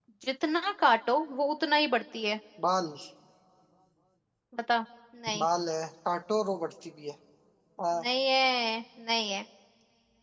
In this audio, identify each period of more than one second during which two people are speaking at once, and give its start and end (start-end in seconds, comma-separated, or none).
none